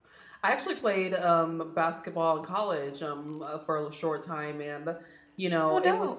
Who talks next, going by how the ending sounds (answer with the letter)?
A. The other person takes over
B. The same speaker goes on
B